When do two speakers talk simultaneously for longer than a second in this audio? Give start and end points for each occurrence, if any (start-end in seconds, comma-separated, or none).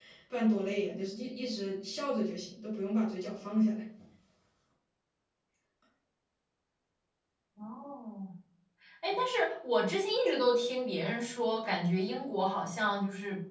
none